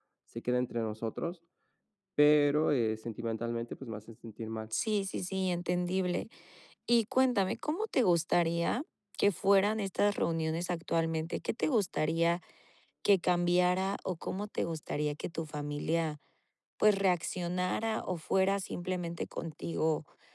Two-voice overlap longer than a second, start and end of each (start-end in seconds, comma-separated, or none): none